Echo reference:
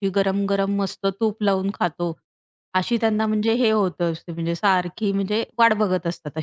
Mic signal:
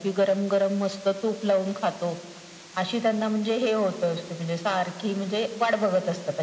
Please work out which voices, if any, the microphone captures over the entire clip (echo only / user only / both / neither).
echo only